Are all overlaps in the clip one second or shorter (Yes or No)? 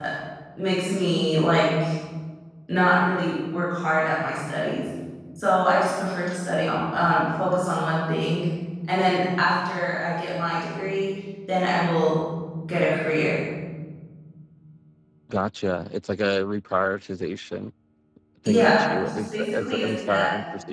No